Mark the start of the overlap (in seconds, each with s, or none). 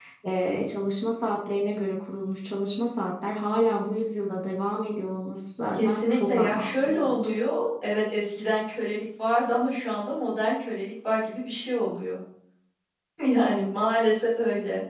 5.7 s